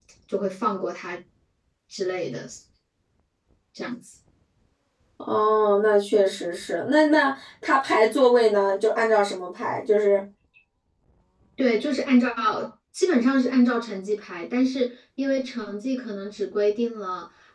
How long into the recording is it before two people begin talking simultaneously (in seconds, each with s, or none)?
none